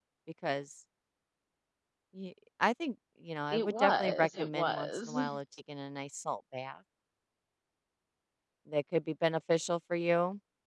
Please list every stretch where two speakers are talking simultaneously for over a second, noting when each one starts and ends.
3.5-5.2

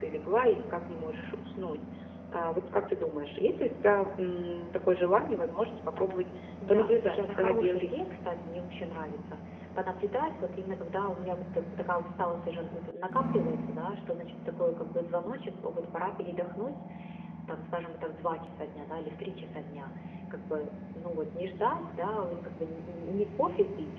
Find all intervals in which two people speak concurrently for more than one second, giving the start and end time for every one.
6.7-8.2

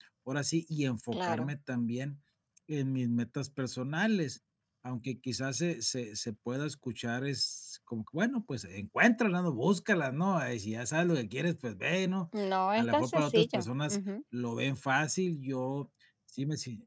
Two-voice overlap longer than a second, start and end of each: 12.8-14.0

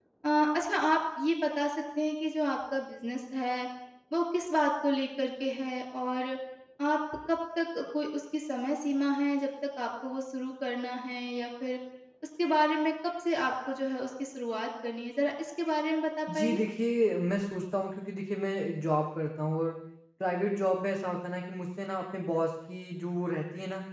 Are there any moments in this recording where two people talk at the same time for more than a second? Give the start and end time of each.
none

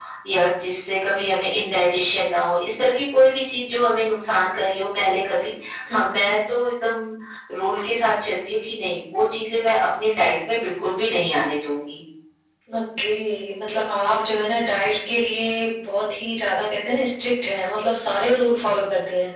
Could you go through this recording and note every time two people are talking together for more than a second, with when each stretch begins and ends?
none

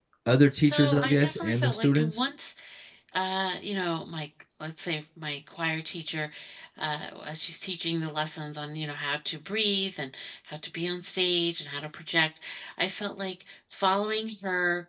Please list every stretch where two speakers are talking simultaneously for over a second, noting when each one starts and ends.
0.7-2.2

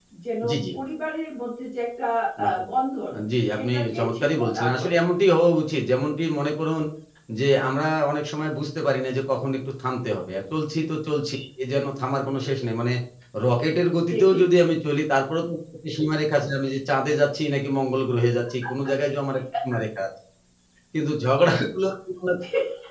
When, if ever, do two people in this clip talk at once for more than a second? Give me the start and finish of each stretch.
3.5-5.0

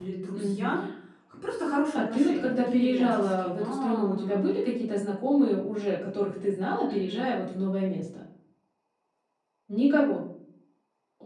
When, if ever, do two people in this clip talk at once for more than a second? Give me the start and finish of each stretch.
1.9-4.4

